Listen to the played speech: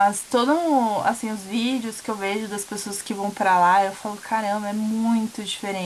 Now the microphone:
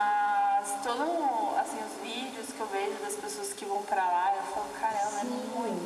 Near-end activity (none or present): present